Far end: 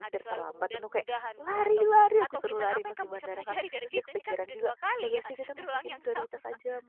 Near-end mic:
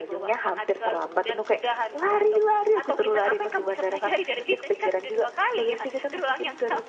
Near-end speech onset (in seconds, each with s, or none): none